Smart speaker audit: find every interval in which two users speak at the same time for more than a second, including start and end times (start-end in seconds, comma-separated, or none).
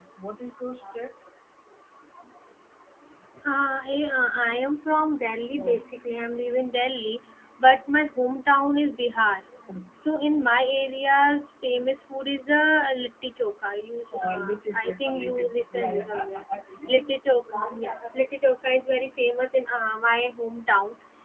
14.8-16.4